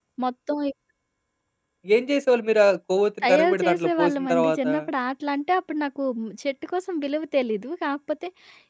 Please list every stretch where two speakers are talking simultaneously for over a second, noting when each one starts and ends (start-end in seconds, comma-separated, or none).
3.2-4.7